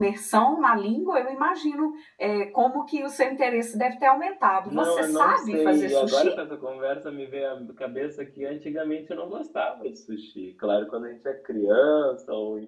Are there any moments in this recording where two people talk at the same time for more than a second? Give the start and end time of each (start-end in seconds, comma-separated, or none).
4.7-6.3